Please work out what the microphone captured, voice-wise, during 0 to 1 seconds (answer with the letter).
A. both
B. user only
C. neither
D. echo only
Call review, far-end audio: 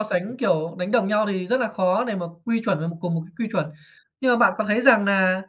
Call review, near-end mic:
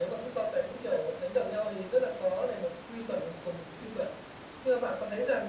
D